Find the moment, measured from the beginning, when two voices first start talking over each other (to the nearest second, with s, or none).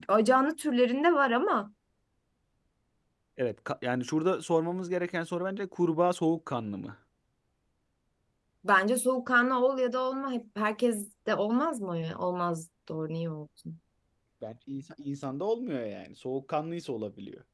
none